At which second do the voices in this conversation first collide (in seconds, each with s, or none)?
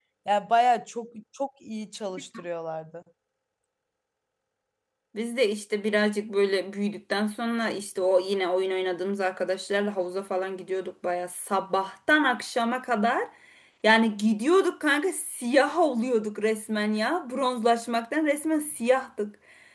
none